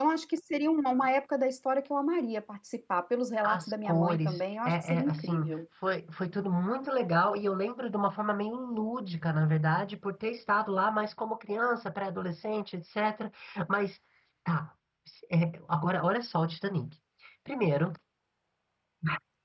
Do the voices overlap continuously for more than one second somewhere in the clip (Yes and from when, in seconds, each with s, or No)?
Yes, from 3.4 s